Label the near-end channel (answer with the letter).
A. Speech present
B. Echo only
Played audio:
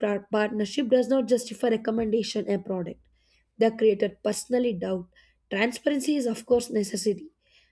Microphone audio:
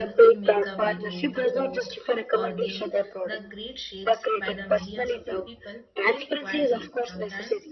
A